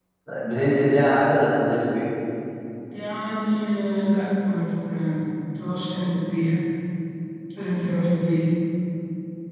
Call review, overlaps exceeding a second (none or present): none